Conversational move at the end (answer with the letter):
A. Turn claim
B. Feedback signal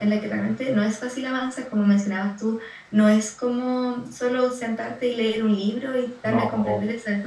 B